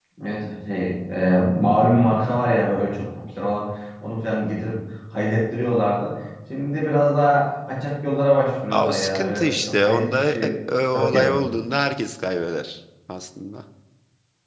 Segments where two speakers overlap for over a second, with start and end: 8.7-10.5

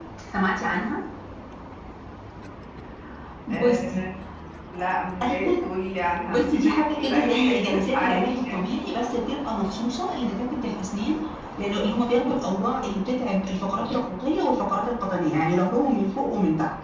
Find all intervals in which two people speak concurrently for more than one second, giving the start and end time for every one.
6.3-8.7

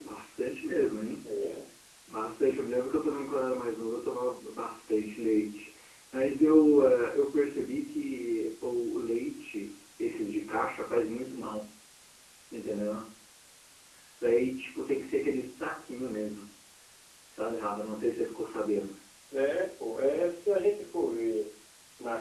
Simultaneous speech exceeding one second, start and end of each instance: none

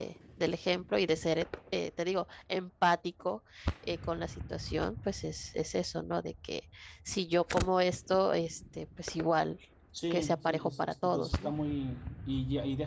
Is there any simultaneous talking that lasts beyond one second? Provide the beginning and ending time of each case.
10.1-11.5

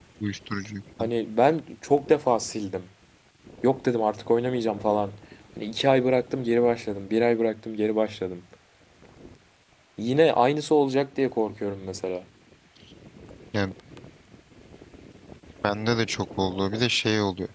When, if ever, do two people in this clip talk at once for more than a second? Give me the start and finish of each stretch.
none

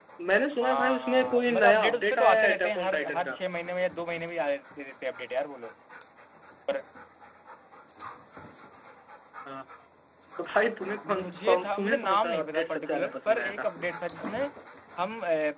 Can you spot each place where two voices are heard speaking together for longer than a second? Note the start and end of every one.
0.6-3.3, 11.1-13.7

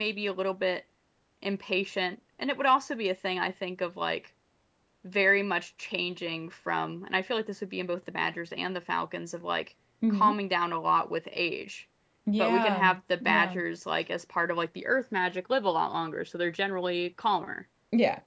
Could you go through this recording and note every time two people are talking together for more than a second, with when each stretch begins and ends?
12.4-13.6

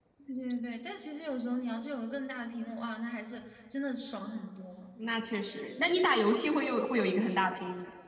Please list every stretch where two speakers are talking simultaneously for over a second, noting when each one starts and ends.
none

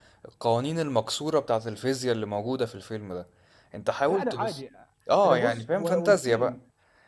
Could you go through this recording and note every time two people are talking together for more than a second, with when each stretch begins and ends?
5.2-6.6

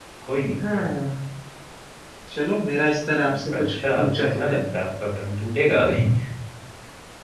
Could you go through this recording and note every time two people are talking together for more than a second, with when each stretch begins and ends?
3.3-4.6

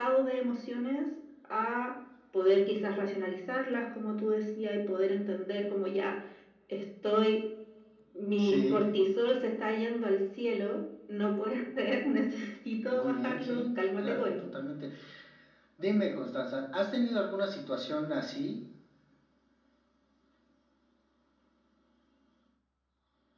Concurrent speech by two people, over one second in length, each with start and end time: 12.9-14.5

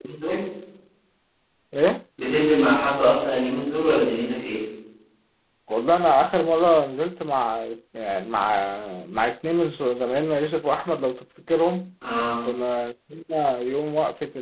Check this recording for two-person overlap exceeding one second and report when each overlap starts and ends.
none

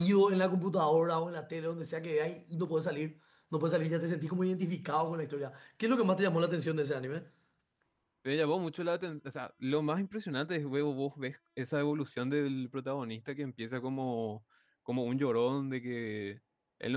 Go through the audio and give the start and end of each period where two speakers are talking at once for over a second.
none

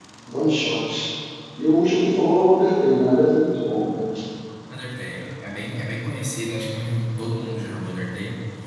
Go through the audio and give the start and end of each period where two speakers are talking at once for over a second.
none

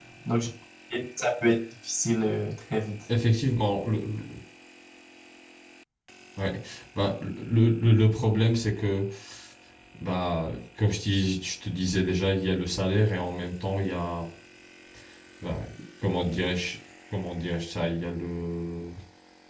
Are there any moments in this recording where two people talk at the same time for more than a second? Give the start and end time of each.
none

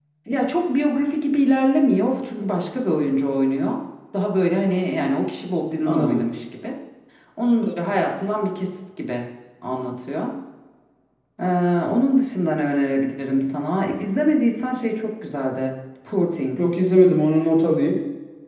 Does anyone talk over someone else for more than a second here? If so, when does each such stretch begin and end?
none

